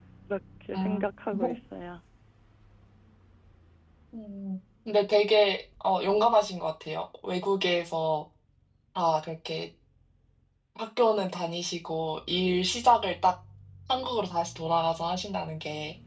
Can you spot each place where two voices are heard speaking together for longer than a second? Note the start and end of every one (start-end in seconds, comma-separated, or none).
none